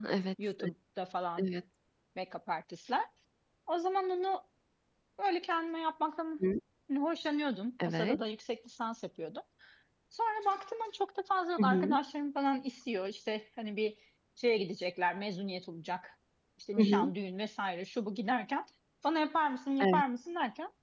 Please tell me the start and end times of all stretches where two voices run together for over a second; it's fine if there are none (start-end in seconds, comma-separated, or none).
none